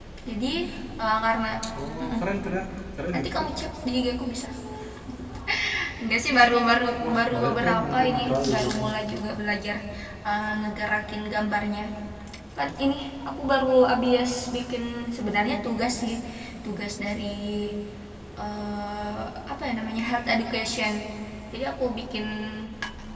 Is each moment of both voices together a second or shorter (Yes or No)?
No